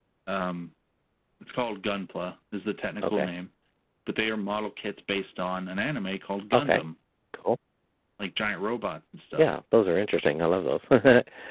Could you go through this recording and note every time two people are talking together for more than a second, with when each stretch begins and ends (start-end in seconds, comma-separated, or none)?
none